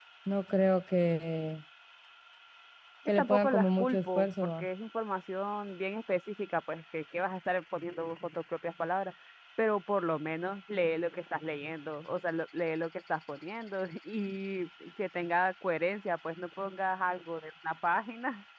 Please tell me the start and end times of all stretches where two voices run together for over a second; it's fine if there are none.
3.2-4.7

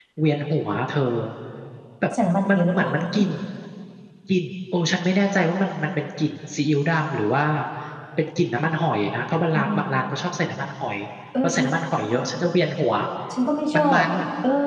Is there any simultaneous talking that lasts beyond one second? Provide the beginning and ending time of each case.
none

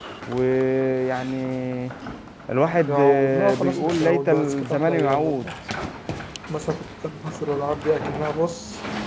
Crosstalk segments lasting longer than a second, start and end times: 2.9-5.5

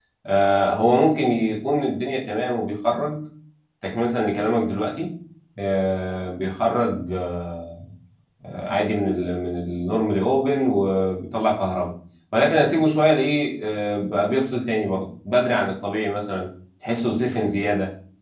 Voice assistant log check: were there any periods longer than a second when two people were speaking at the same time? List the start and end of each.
none

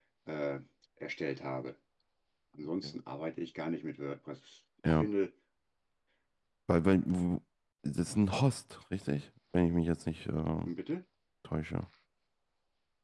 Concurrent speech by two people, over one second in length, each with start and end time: none

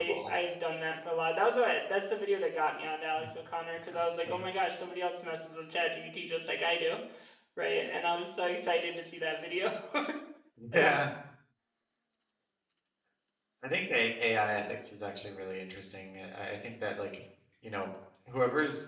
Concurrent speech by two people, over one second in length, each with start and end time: none

